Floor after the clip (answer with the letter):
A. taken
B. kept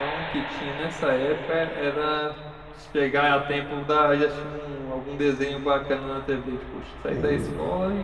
B